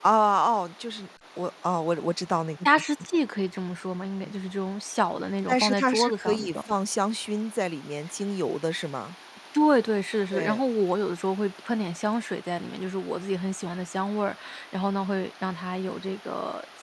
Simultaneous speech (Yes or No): Yes